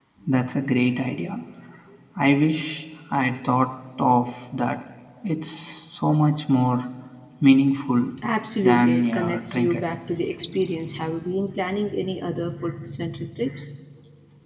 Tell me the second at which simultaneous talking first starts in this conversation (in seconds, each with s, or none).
8.6 s